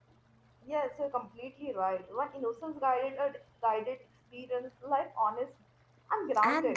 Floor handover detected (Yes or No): Yes